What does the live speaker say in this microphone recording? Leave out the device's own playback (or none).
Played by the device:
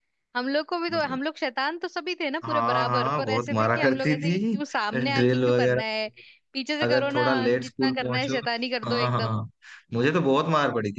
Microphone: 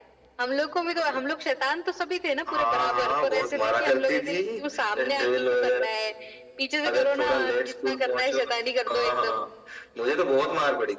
none